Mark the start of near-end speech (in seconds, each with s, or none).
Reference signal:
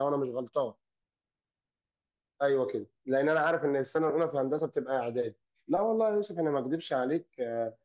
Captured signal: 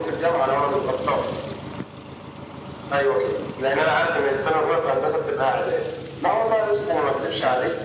none